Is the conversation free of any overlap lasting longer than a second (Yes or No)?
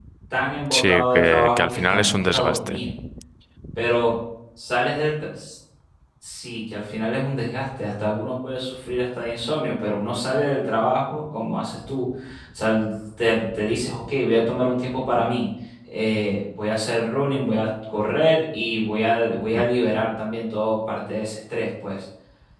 No